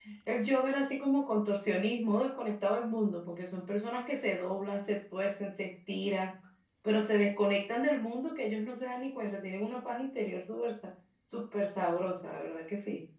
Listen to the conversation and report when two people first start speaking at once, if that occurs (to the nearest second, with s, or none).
none